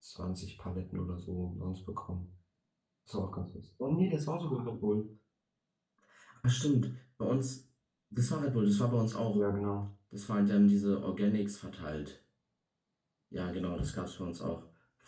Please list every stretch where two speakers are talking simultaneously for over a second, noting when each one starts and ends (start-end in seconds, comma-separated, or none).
none